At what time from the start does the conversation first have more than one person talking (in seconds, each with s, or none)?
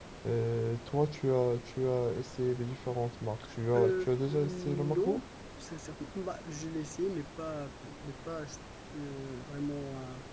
3.8 s